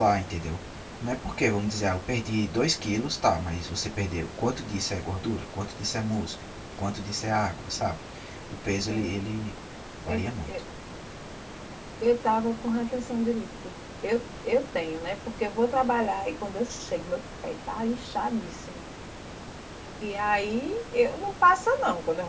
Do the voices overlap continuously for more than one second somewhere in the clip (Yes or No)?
No